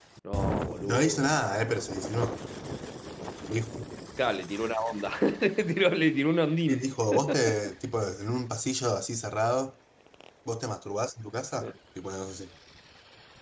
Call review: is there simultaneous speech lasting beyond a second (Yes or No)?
No